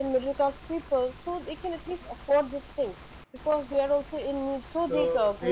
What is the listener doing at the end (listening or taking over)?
taking over